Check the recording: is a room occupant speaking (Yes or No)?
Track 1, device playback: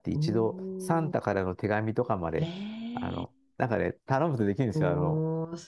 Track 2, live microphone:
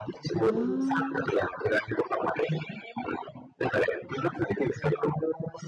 Yes